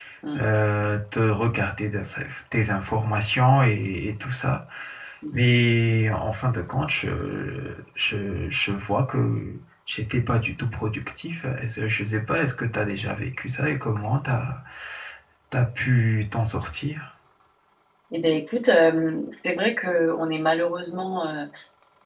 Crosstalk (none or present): none